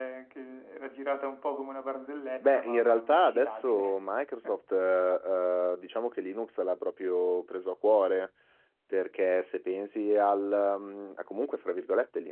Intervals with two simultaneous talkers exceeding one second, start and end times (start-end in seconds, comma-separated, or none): 2.4-3.9